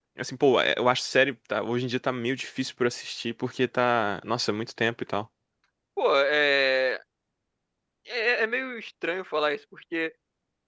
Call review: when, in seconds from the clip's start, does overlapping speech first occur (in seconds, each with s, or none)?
none